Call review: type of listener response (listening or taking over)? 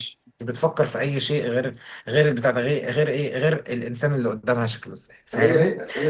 taking over